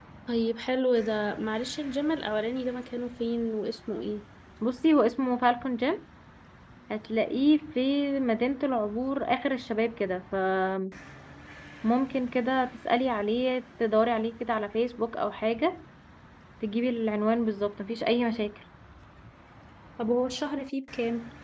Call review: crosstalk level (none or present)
none